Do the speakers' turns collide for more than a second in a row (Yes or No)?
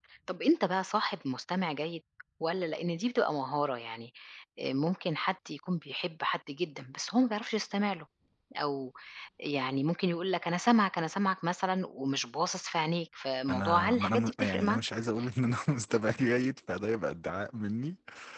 Yes